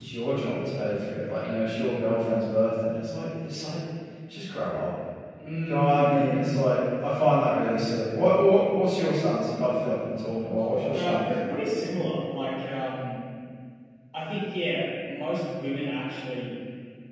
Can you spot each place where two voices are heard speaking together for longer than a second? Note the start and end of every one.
none

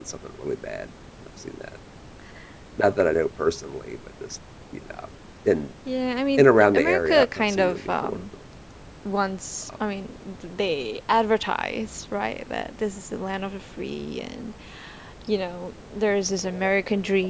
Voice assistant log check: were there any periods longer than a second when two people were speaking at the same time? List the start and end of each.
6.4-8.2

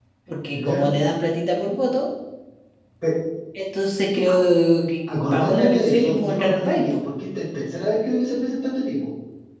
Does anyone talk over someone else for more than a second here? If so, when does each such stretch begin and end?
5.1-6.9

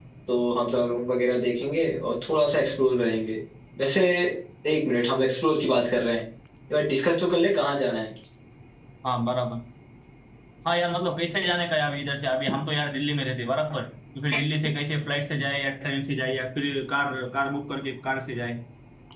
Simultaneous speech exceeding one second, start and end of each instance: none

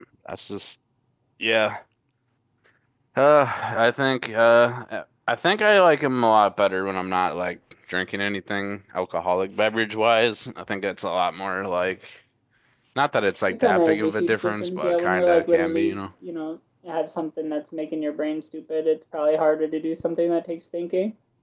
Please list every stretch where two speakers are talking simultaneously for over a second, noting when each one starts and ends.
13.6-15.9

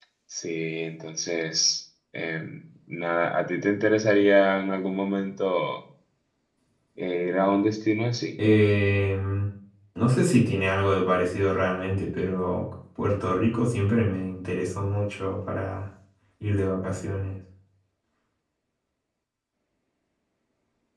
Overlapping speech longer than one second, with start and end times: none

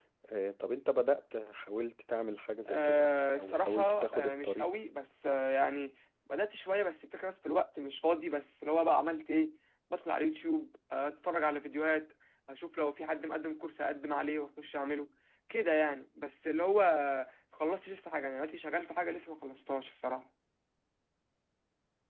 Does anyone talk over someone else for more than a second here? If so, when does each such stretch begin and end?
2.7-4.7

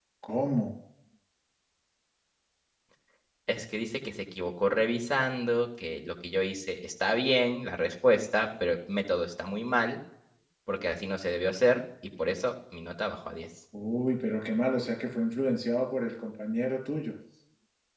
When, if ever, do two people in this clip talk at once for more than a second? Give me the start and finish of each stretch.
none

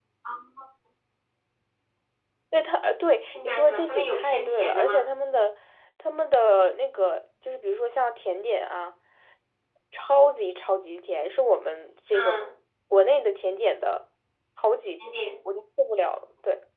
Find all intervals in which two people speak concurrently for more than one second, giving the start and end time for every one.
3.3-5.0

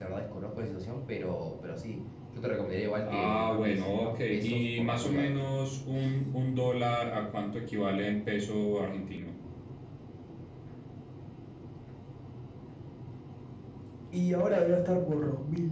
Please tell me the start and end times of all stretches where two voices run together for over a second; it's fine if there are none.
3.0-5.5

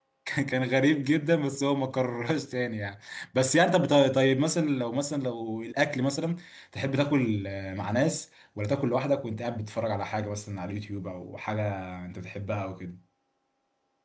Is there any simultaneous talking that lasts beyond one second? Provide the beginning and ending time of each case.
none

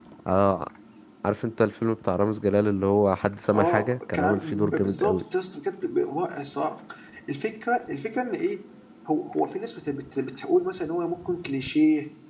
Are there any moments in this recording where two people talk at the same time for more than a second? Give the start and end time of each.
3.5-5.2

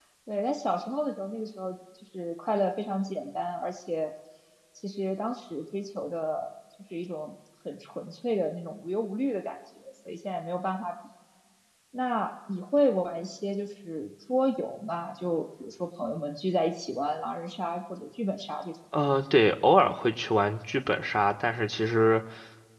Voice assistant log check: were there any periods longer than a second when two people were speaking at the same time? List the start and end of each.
none

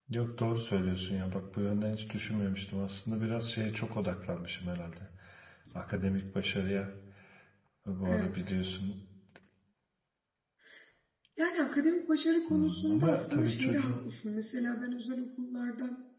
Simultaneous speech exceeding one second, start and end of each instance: 12.5-14.0

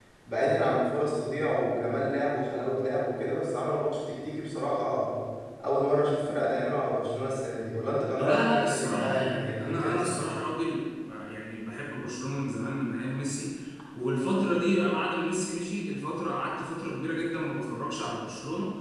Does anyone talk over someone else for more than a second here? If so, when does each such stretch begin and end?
8.2-10.2

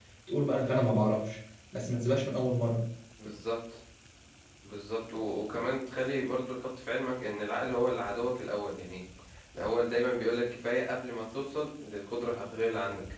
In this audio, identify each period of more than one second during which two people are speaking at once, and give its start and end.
none

